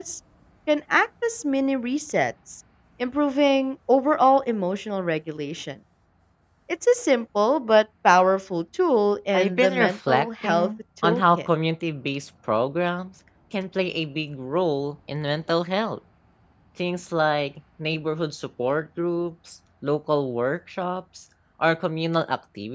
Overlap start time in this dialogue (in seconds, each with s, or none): 9.3 s